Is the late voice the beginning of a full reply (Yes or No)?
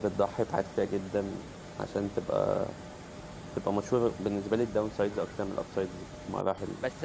Yes